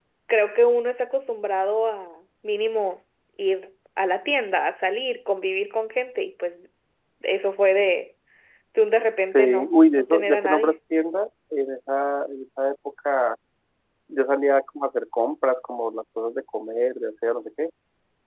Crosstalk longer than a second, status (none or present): present